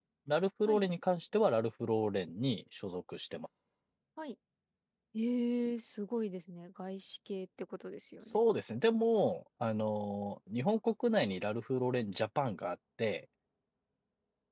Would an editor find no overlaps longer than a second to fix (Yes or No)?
Yes